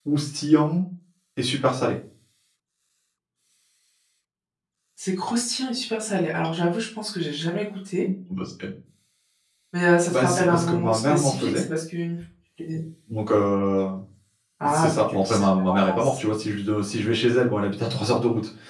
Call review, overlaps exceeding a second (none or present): present